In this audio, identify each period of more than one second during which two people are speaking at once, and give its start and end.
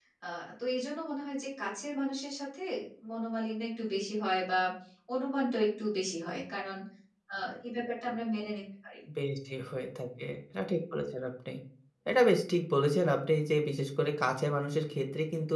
none

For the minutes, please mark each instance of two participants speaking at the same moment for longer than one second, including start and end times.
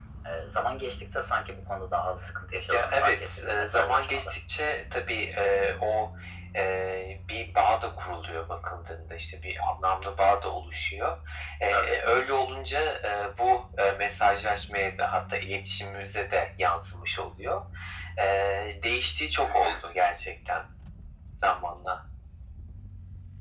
2.7-4.3

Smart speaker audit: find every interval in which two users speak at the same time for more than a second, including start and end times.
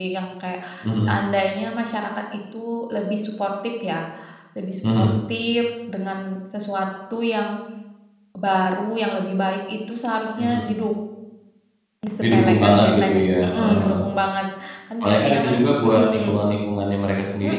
12.2-14.0, 15.0-16.3

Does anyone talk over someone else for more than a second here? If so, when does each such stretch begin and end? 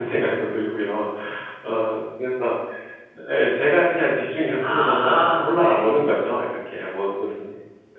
4.7-6.1

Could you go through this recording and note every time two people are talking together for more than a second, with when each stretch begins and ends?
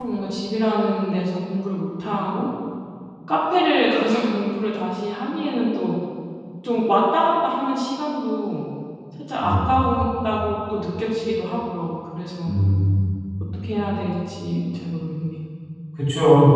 none

